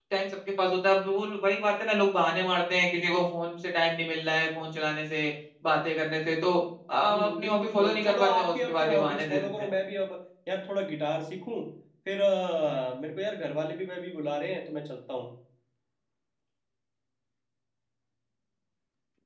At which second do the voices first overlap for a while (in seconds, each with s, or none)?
7.1 s